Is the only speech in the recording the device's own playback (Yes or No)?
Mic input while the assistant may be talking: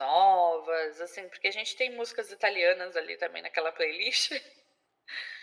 Yes